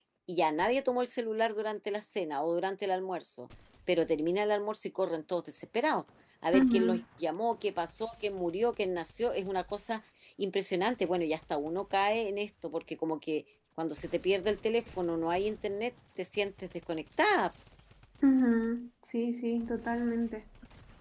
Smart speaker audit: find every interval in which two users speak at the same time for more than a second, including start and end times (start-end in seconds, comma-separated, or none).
none